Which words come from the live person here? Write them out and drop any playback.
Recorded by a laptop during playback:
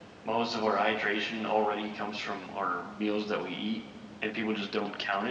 none

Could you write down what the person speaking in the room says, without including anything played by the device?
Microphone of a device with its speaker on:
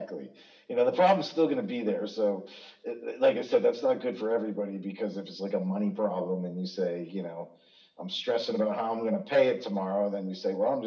none

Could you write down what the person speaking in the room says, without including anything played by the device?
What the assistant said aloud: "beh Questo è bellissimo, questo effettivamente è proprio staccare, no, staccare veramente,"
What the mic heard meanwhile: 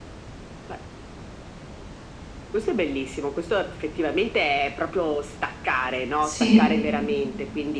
Sì,

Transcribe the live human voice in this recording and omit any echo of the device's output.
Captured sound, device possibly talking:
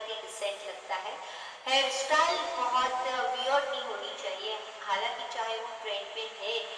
none

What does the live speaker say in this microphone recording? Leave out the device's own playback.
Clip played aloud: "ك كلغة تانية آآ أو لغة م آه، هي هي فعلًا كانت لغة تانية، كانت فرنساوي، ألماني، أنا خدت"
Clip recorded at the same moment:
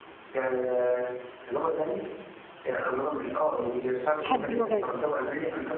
باحب اللغات،

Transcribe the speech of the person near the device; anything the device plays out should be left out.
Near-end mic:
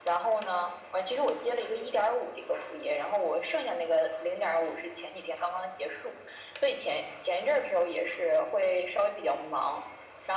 none

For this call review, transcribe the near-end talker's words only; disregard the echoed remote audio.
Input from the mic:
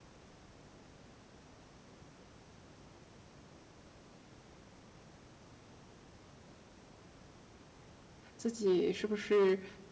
自己是不是，

